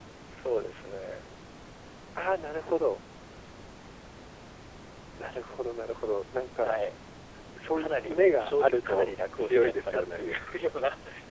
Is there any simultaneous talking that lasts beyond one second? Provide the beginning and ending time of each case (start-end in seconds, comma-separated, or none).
7.8-10.2